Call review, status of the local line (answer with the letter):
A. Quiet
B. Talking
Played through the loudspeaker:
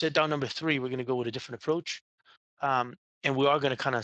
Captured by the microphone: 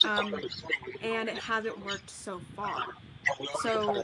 B